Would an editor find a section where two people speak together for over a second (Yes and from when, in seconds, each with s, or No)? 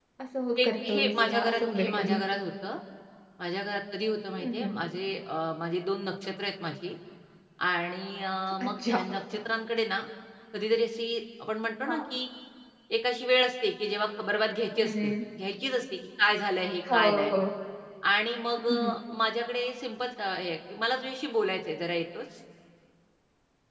Yes, from 0.6 s